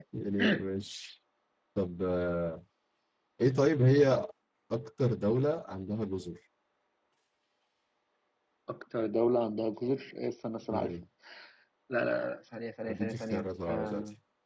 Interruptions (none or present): present